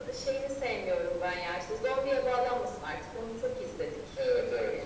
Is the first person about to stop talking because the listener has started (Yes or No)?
Yes